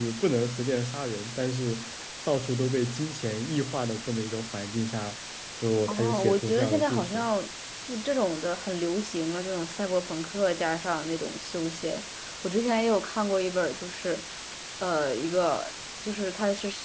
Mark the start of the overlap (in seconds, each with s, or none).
5.9 s